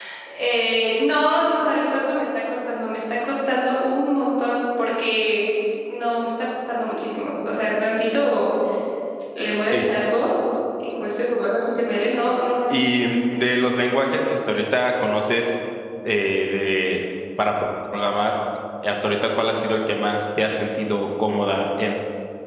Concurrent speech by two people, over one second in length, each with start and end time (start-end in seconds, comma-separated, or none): none